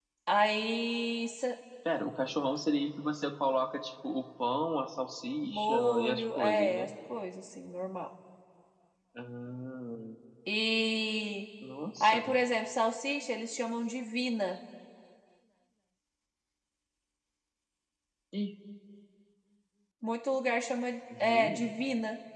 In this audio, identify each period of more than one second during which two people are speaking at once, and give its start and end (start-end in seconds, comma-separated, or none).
5.5-6.9